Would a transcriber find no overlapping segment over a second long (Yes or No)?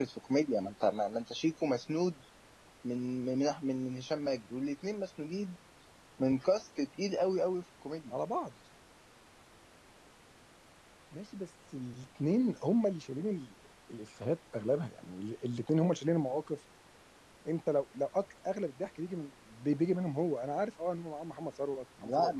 Yes